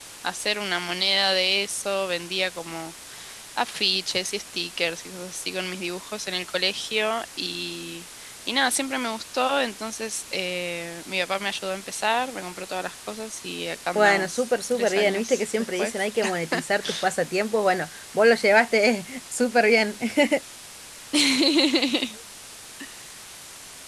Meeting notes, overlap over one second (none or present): present